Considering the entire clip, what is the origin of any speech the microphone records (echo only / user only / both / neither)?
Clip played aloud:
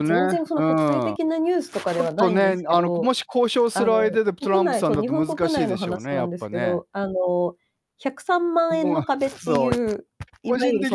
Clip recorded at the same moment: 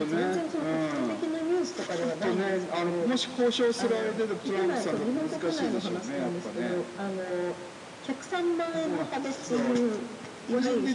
echo only